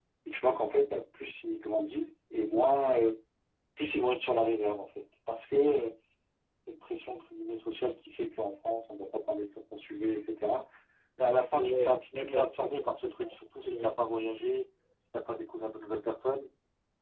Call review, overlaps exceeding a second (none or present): present